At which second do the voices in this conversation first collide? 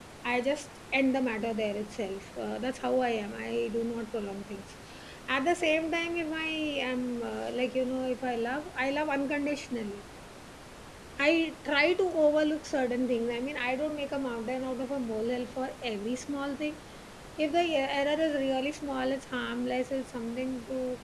none

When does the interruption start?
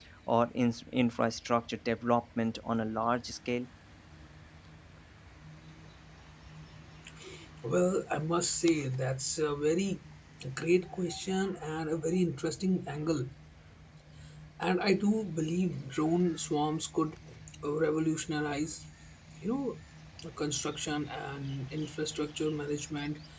none

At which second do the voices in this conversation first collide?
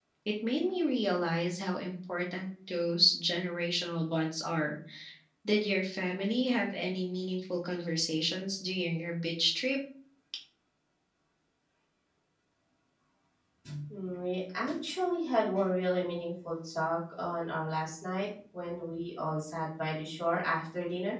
none

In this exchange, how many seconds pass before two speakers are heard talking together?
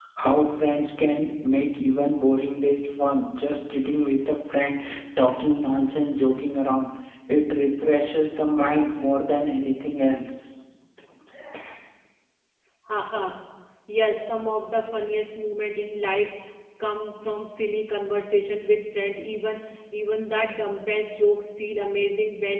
none

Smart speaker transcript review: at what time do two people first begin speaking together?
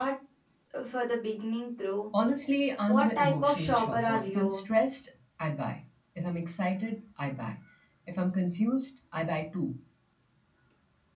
2.9 s

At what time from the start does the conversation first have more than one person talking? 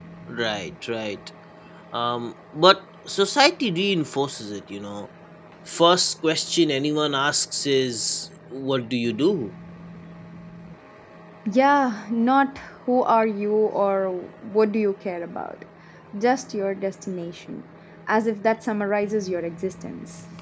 none

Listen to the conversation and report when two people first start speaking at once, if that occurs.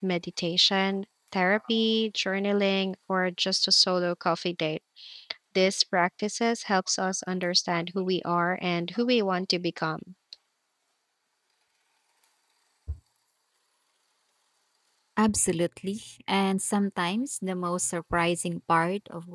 none

